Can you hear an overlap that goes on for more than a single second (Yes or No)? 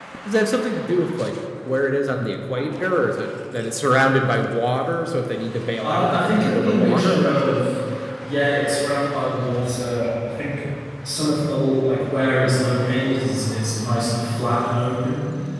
Yes